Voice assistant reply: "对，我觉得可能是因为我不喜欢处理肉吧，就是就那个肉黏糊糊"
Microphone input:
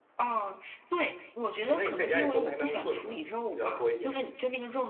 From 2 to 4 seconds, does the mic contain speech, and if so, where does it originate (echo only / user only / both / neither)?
both